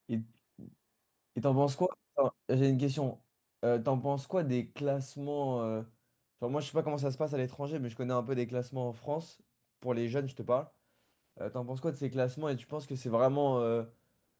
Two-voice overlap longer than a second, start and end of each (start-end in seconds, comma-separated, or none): none